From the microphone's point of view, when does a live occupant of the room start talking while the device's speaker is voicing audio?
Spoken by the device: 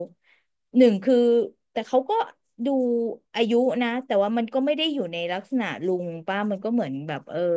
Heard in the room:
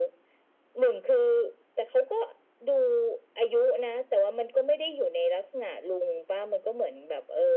none

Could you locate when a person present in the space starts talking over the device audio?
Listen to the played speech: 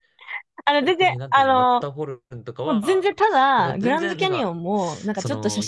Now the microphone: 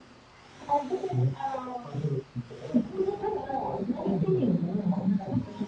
none

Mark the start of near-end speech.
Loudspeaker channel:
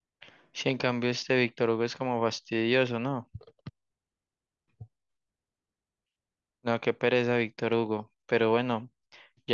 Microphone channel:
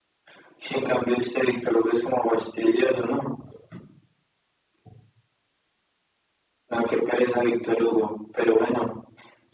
none

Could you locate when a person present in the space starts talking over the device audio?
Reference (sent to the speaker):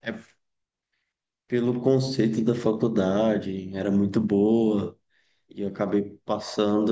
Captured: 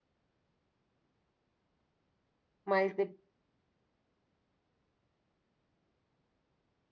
2.6 s

